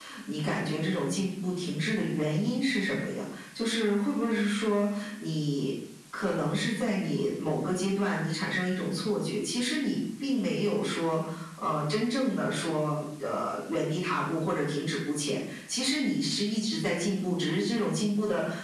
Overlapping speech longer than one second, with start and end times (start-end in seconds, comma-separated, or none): none